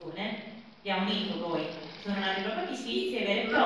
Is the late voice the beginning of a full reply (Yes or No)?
Yes